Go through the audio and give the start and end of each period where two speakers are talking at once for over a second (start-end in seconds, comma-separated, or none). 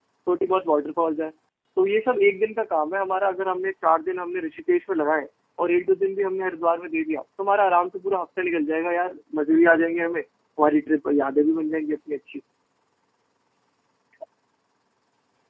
none